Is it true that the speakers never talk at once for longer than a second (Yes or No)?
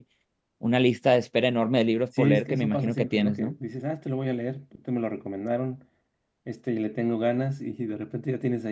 No